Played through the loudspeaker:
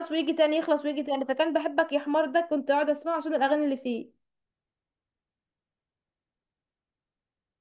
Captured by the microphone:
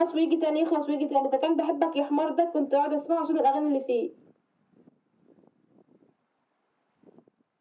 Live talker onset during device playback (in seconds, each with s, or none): none